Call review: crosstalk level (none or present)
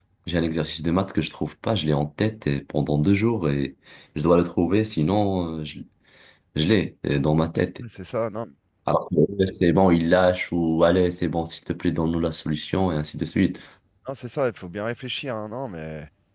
none